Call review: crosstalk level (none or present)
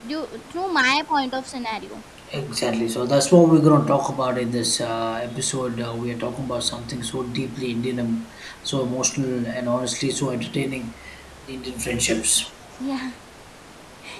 none